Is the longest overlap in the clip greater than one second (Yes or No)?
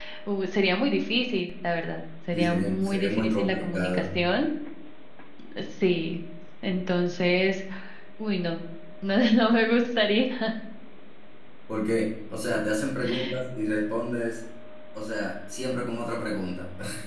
Yes